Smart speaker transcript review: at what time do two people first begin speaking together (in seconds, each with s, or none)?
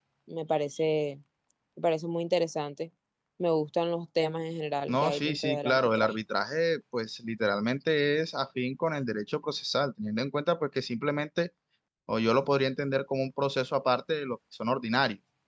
4.9 s